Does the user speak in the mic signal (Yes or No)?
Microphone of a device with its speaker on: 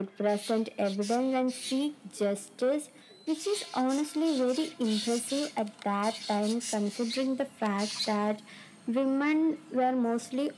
No